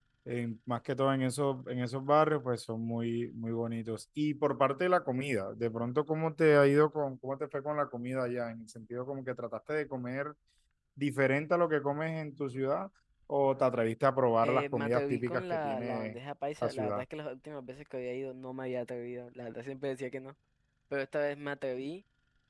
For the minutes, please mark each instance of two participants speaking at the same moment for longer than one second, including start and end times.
14.4-16.2

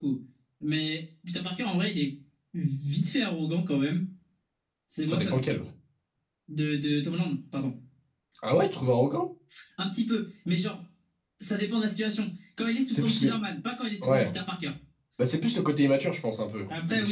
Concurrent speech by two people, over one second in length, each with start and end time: none

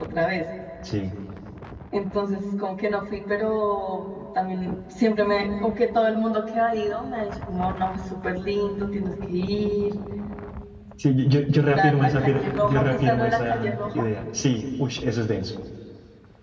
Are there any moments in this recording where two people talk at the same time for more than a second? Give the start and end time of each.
11.7-14.0

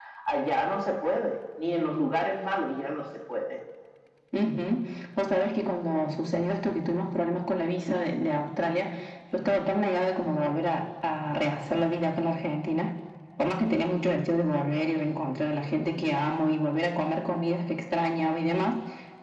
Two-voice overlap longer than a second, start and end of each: none

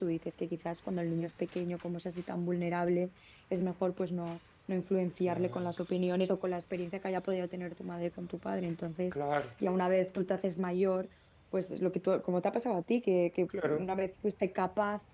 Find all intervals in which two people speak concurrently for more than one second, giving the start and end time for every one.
none

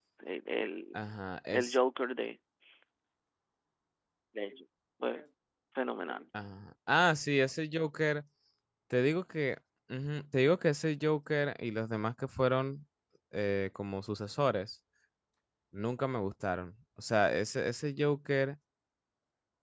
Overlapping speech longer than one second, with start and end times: none

